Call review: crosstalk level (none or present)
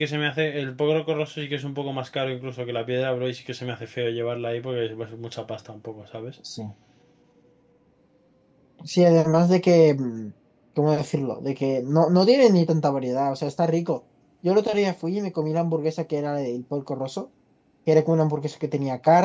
none